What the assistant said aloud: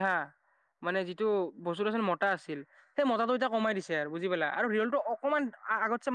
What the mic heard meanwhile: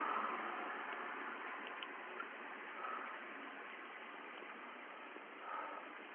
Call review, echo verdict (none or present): none